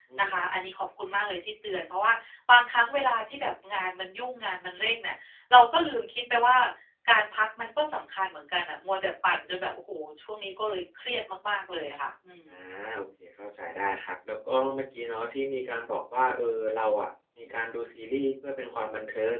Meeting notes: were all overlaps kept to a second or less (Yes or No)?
Yes